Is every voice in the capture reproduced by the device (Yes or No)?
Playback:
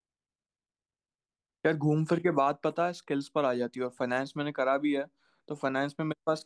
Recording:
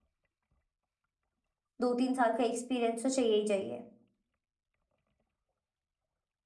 No